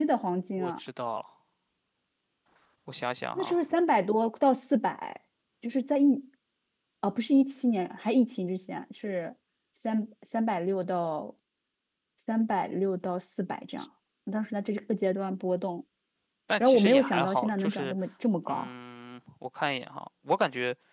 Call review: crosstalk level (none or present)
present